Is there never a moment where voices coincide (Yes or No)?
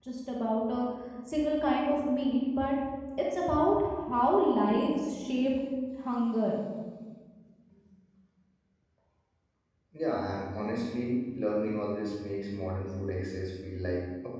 Yes